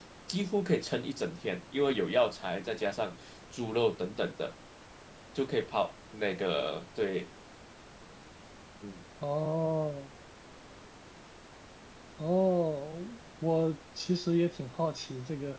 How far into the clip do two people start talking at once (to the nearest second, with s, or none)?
none